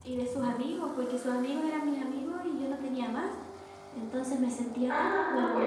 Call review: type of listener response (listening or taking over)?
taking over